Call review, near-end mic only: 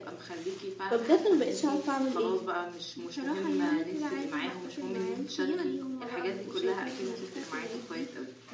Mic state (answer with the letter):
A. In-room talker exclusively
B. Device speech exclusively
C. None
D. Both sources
D